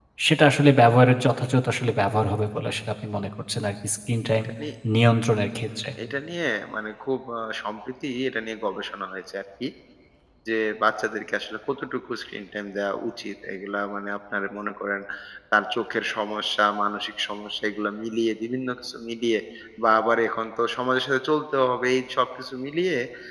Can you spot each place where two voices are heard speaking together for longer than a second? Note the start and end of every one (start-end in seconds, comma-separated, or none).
none